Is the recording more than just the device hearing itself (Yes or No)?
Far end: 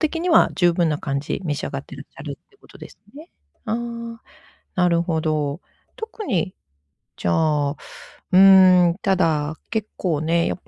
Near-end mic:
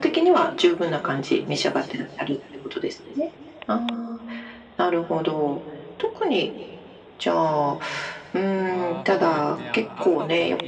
Yes